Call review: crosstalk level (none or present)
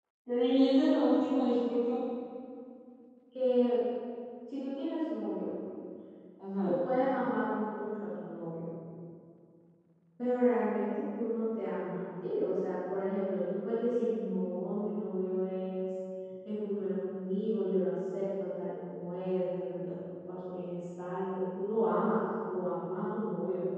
none